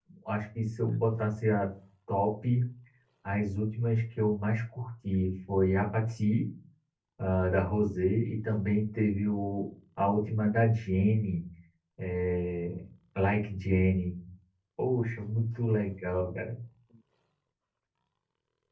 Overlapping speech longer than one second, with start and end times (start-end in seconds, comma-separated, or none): none